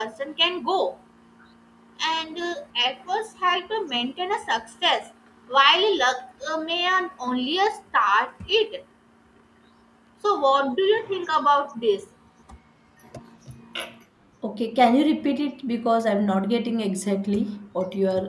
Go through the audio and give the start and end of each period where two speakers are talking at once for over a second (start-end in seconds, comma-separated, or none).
none